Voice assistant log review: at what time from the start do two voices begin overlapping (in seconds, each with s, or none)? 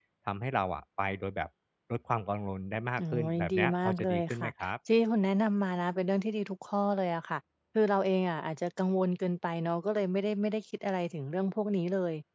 3.0 s